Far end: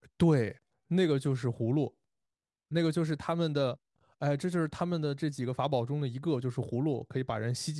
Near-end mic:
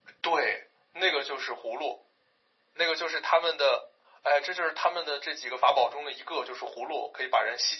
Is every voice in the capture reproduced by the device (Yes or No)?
Yes